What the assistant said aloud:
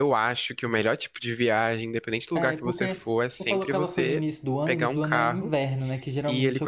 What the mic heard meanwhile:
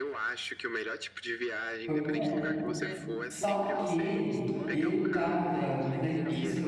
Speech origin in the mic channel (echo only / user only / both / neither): both